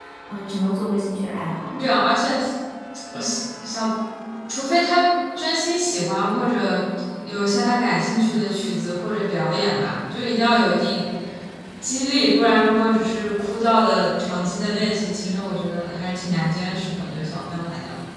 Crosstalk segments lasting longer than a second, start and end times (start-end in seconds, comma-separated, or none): none